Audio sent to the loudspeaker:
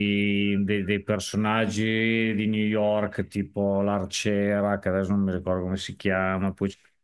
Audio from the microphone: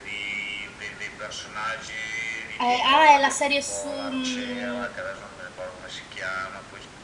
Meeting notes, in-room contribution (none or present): present